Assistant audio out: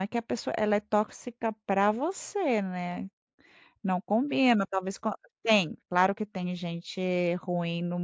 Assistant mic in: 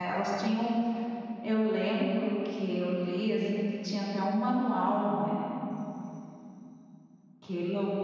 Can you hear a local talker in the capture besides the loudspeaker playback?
Yes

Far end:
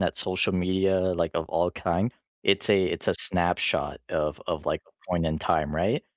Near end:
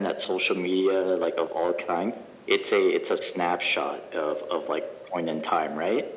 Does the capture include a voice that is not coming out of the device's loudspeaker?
No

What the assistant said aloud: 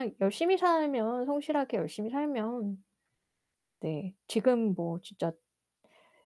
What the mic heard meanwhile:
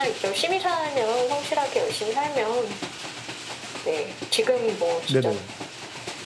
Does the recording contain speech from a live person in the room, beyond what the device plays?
Yes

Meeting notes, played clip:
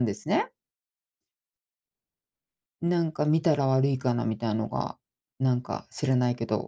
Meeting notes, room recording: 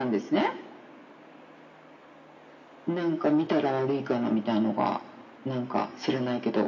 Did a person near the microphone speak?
No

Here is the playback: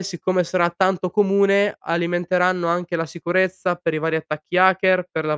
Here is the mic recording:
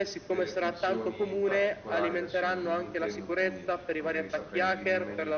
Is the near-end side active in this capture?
Yes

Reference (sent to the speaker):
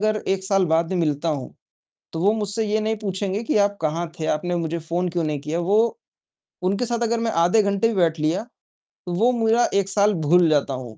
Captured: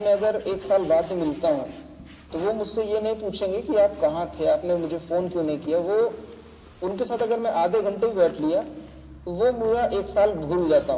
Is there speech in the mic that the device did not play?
No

